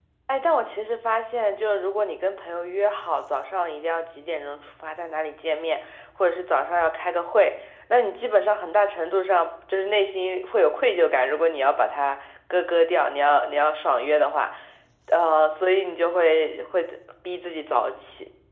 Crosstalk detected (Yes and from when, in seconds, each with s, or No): No